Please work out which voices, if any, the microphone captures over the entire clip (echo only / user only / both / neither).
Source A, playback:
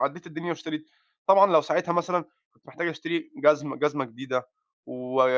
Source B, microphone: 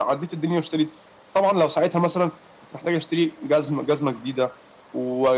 echo only